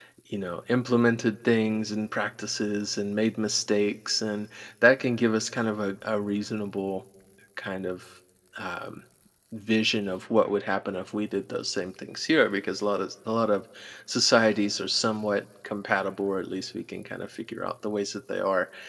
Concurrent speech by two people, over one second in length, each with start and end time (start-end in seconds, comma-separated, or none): none